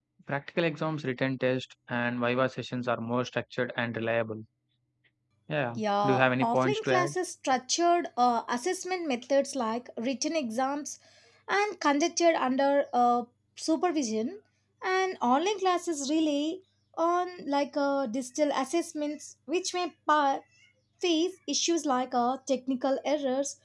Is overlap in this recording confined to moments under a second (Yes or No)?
No